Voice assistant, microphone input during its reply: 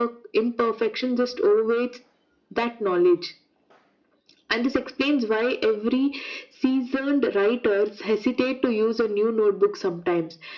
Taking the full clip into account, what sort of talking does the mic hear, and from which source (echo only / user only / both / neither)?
echo only